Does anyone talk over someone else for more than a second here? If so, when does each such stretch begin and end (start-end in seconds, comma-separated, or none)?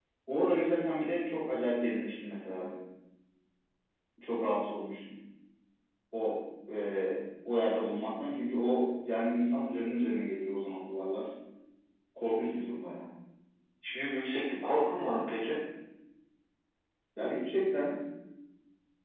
none